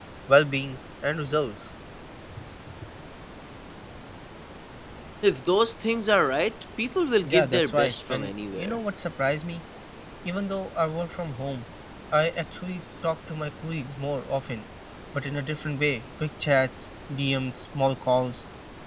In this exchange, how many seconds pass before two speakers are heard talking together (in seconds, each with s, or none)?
7.2 s